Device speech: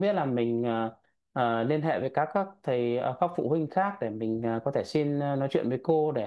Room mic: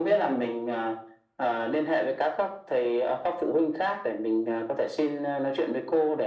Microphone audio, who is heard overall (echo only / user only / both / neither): echo only